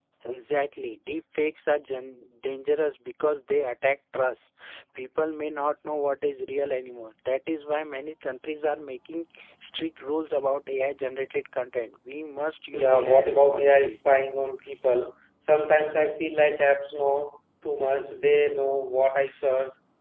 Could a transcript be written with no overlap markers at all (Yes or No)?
No